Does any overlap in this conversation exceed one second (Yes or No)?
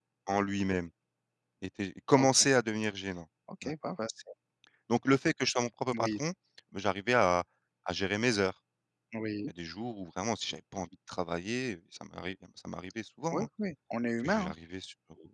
No